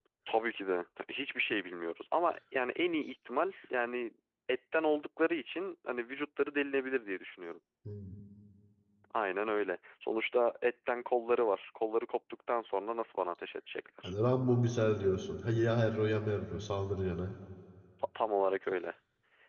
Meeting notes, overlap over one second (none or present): none